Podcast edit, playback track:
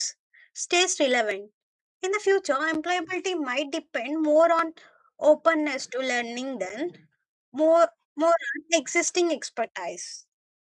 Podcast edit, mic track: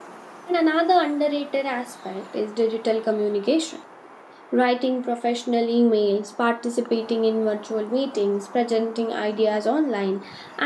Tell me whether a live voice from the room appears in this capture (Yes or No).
Yes